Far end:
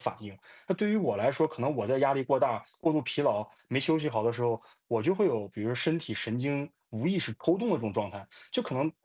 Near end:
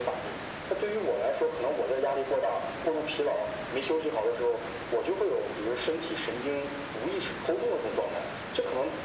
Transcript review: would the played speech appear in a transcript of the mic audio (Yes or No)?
Yes